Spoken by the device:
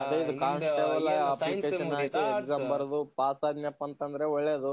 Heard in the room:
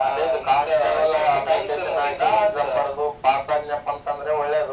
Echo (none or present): present